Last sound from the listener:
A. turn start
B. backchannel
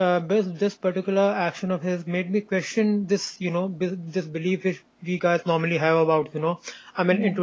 B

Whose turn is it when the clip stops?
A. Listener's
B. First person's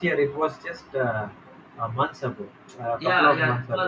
A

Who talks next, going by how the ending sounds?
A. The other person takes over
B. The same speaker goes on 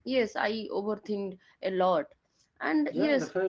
B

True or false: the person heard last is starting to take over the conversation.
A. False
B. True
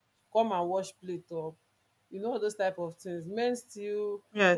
A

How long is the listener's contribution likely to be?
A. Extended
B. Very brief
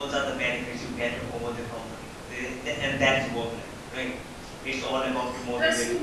A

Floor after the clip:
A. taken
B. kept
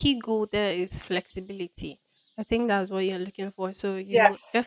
B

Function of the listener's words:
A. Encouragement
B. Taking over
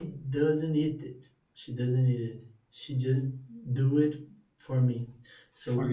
A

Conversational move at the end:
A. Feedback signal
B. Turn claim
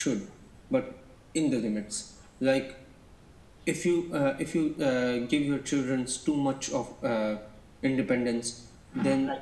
A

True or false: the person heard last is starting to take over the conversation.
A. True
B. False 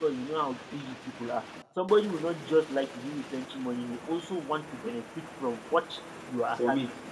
B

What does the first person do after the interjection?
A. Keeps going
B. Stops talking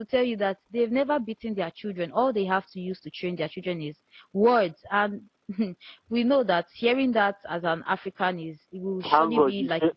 B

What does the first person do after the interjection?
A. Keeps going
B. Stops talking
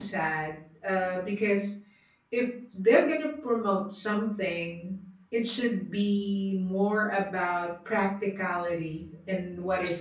A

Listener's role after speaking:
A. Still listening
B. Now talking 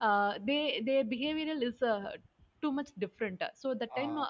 A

